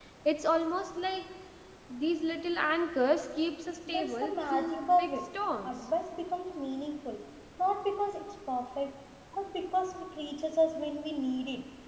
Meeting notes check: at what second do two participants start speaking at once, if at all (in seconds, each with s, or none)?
3.9 s